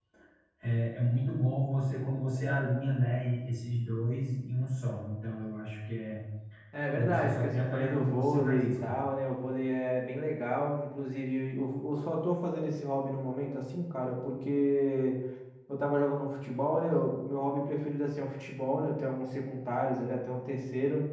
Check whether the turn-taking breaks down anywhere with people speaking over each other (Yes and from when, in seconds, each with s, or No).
Yes, from 6.9 s